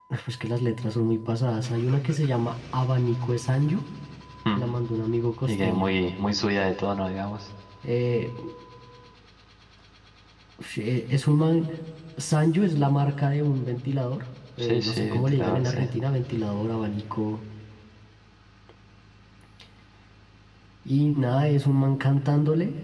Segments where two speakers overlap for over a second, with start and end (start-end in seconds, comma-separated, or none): 14.6-15.9